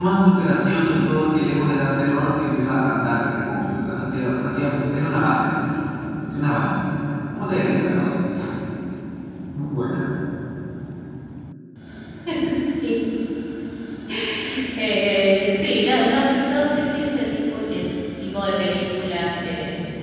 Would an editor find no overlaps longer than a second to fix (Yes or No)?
Yes